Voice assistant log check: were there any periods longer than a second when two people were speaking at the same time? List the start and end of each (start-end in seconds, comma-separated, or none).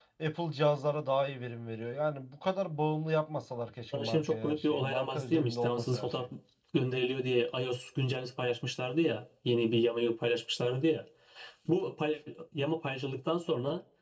3.9-6.3